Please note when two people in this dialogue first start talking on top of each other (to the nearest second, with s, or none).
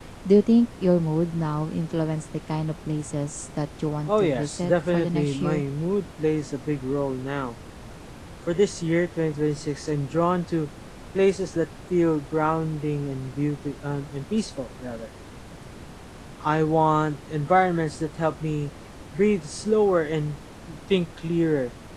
4 s